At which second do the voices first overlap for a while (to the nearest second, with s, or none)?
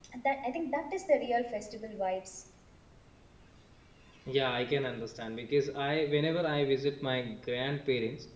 none